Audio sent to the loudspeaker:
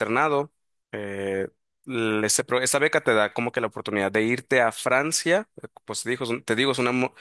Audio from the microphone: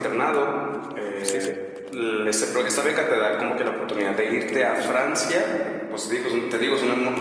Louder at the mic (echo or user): echo